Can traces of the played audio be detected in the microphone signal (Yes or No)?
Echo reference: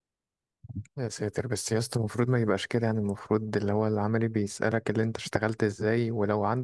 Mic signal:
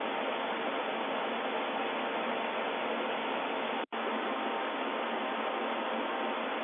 No